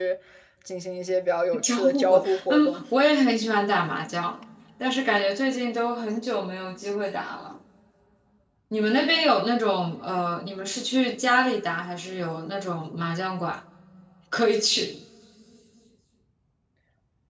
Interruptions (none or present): present